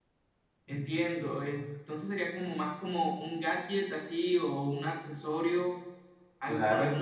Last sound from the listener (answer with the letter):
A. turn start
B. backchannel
A